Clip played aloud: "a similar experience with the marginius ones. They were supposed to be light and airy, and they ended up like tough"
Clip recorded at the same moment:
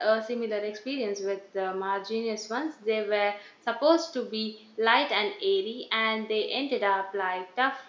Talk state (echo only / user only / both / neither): echo only